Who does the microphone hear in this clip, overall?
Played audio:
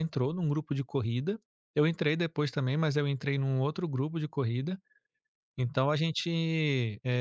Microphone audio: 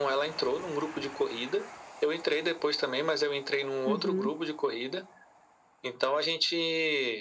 both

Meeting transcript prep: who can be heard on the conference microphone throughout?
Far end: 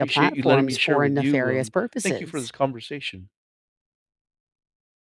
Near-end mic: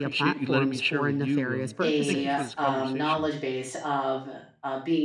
both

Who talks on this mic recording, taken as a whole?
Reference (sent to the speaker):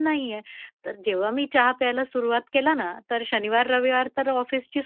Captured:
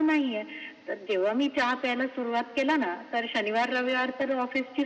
echo only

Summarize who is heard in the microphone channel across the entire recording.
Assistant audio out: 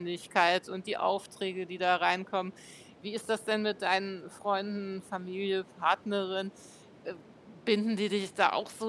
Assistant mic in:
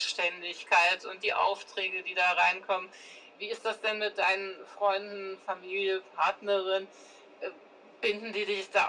echo only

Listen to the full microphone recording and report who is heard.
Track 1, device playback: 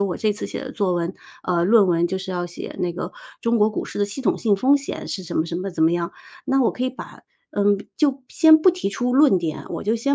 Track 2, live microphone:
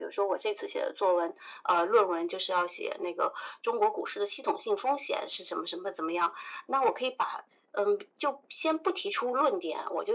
echo only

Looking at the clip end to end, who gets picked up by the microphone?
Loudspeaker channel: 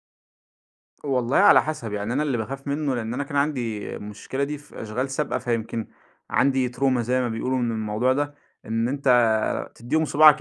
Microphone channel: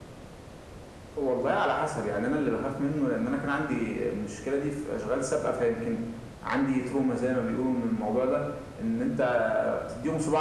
echo only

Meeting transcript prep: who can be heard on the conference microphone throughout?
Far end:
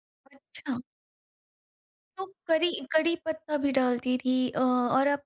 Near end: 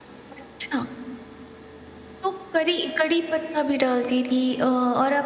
echo only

